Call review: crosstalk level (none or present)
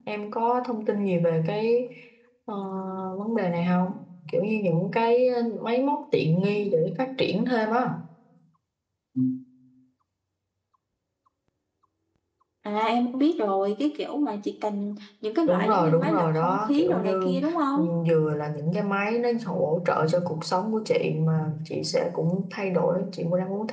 present